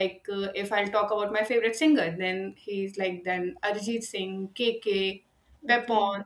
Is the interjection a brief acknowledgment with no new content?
Yes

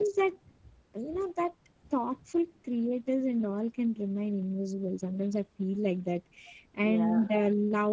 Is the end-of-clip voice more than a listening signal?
No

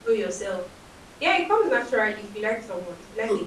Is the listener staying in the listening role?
No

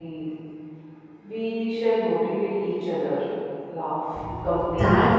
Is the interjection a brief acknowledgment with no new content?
No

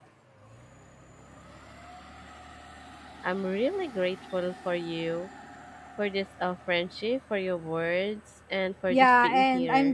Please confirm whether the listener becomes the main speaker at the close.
Yes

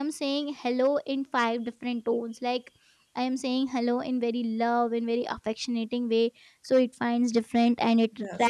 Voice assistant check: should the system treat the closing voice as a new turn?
No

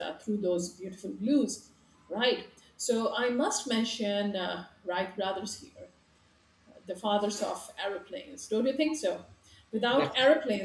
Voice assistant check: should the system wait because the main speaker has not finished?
Yes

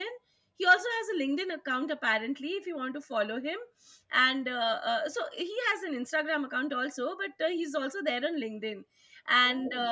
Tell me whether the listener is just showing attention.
Yes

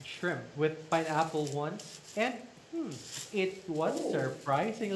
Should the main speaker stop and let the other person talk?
No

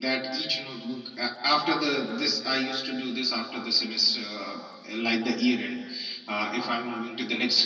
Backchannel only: Yes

